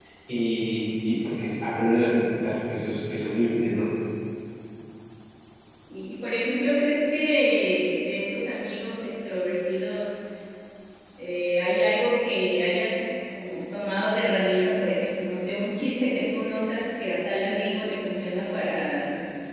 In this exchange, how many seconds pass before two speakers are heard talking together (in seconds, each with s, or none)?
none